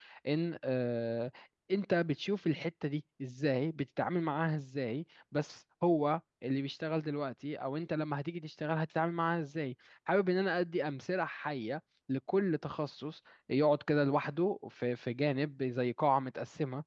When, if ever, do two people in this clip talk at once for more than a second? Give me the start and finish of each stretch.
none

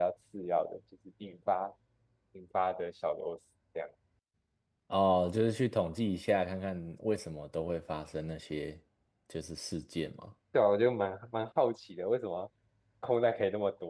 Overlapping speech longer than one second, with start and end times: none

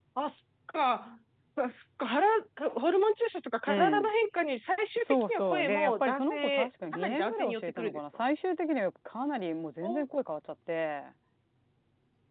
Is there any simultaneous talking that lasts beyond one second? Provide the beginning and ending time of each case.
5.0-8.0

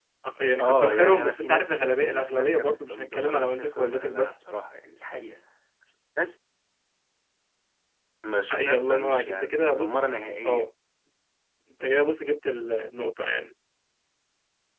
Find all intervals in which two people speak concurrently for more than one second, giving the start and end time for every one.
0.6-4.3, 8.5-10.1

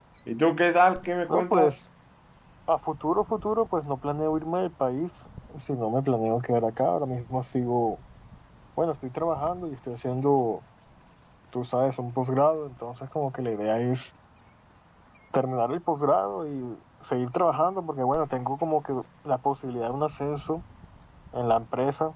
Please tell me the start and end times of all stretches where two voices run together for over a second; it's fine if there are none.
none

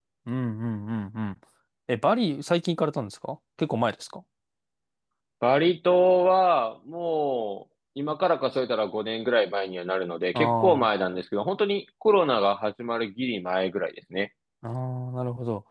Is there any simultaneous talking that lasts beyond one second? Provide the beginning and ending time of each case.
none

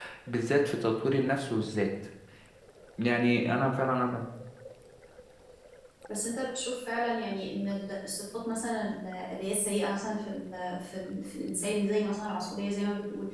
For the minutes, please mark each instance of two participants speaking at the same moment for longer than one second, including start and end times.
none

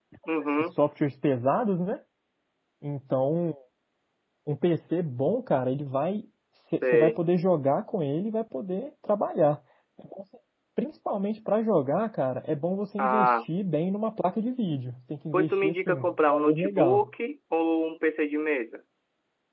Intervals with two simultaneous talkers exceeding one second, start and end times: 15.3-17.1

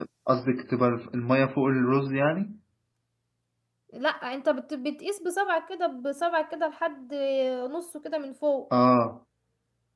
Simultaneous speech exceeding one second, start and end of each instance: none

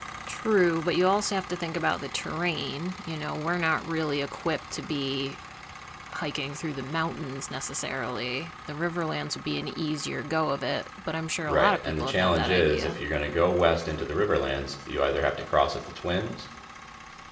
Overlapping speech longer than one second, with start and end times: 11.4-13.0

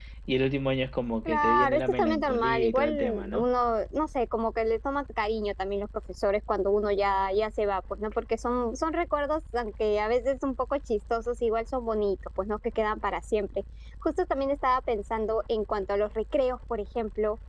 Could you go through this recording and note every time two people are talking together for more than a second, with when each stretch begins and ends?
1.2-3.5

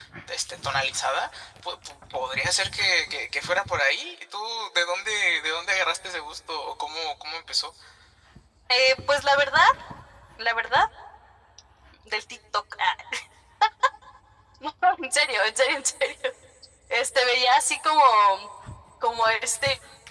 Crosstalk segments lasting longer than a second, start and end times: none

